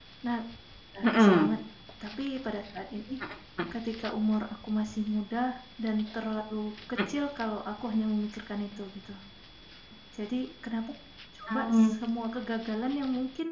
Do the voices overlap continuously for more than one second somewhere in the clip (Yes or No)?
No